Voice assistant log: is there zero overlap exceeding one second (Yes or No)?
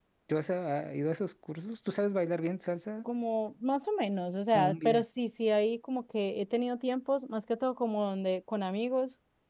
Yes